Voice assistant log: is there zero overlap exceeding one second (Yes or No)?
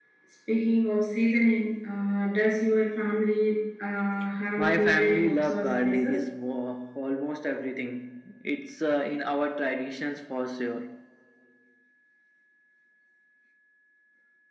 No